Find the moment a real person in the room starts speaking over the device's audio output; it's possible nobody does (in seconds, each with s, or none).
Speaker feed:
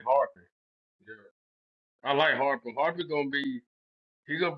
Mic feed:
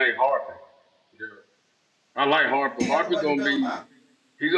2.8 s